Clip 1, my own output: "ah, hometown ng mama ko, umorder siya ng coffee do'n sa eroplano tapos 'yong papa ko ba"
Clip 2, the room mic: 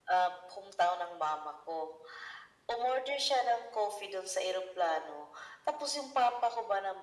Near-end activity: none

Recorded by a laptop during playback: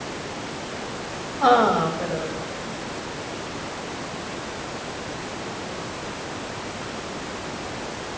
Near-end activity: present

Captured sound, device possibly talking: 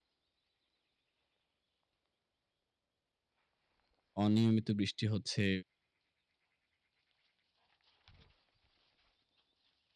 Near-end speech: present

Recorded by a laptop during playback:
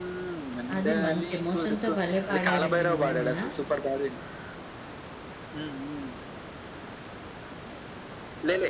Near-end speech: present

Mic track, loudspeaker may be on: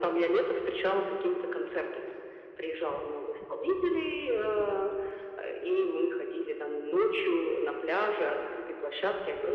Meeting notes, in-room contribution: none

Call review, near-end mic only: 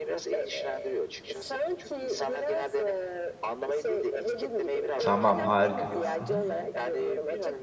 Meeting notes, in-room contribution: present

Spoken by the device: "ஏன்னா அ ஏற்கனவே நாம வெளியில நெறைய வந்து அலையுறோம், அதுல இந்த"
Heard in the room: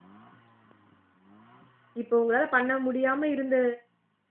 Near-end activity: present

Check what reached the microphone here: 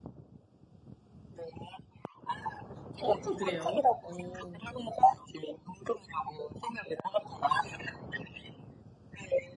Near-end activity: present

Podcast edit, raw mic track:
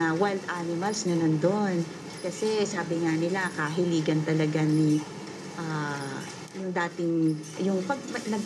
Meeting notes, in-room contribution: none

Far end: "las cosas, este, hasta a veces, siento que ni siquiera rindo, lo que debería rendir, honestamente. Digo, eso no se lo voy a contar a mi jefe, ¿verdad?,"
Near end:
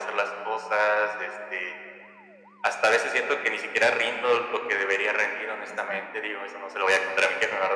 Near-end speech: present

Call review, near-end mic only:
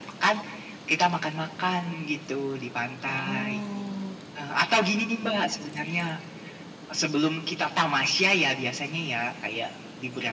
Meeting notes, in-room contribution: present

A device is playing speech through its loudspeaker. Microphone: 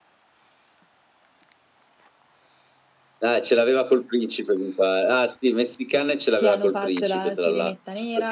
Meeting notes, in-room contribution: present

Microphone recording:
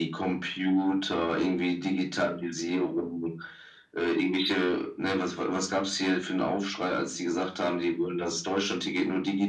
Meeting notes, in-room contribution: none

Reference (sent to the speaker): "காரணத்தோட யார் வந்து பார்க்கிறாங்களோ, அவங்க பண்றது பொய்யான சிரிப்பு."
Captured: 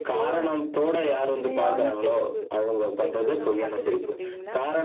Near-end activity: present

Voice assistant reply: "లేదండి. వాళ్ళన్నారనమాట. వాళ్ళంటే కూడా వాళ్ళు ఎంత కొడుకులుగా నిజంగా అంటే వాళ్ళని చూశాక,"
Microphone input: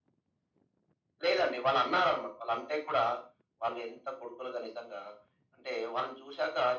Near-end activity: none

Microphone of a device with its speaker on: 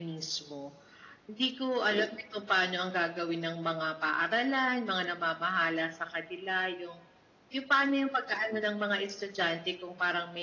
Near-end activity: none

